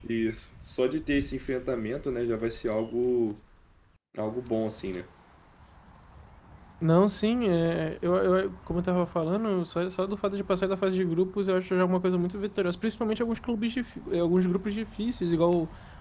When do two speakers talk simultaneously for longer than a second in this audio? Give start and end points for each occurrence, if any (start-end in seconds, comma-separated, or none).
none